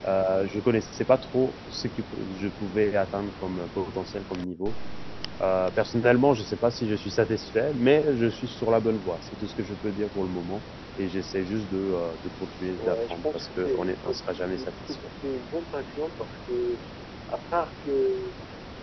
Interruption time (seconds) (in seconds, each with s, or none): 12.8 s